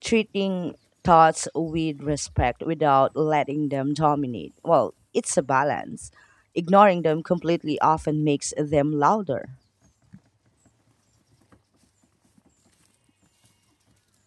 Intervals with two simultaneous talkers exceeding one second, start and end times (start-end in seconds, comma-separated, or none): none